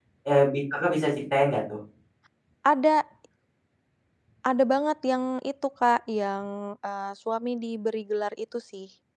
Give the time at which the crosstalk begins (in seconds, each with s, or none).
none